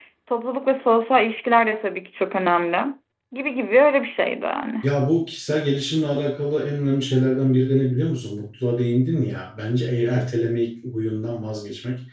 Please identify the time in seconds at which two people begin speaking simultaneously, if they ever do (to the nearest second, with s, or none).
none